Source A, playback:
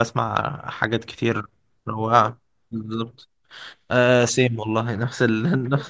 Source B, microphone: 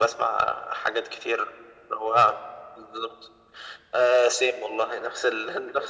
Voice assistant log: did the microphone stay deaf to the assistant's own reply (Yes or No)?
No